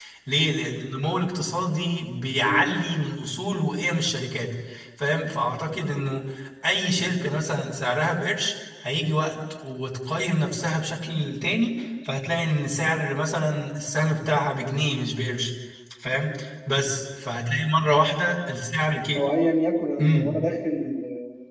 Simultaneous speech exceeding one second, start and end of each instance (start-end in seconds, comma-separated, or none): none